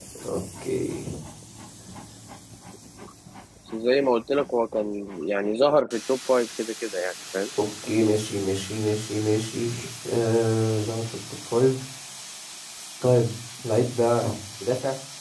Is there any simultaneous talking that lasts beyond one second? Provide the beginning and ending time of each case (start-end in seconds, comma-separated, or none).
none